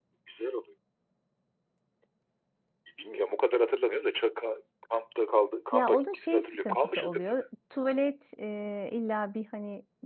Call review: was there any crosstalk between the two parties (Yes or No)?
Yes